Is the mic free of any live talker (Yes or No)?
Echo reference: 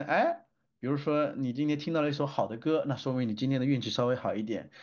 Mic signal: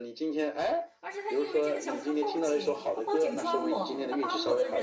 No